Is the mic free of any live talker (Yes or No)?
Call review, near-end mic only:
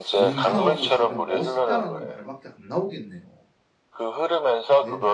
No